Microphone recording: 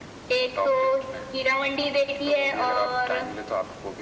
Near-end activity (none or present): none